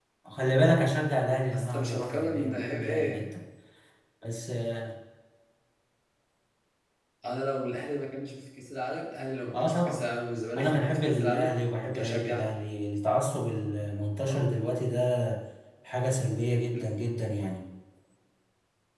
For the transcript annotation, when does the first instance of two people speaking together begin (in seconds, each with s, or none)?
1.5 s